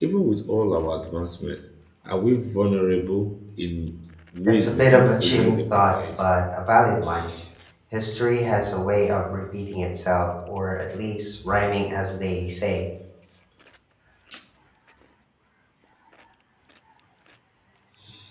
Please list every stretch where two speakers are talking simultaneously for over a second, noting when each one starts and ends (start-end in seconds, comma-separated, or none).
4.5-6.3